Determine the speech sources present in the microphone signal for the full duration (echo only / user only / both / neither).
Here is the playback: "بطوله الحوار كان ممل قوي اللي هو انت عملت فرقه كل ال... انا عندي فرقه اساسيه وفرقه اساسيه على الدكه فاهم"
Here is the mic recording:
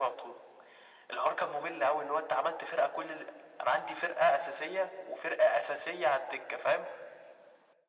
echo only